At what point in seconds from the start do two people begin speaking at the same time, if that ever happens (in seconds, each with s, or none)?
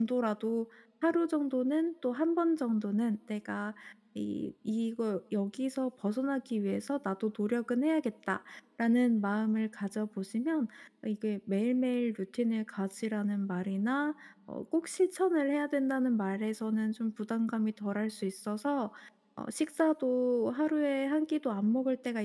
none